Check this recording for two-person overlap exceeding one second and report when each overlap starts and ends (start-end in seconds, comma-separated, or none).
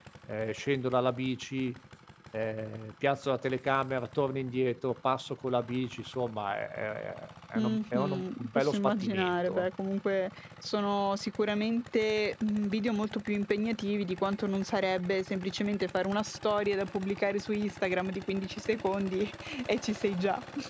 7.5-9.7